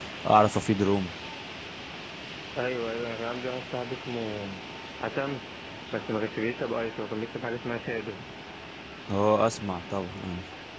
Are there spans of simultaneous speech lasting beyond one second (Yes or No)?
No